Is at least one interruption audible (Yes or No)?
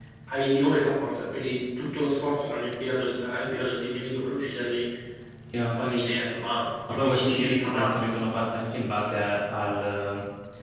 Yes